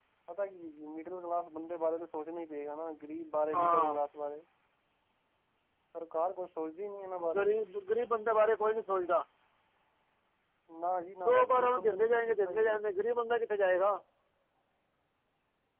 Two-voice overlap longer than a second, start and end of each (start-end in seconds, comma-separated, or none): 11.2-12.8